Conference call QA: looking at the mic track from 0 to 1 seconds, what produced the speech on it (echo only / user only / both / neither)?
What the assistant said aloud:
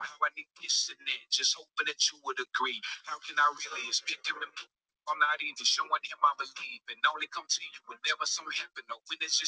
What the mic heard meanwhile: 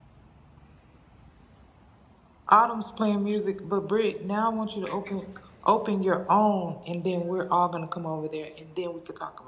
neither